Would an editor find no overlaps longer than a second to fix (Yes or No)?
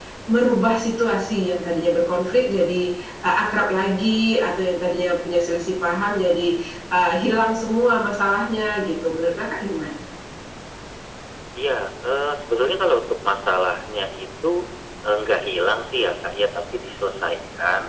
Yes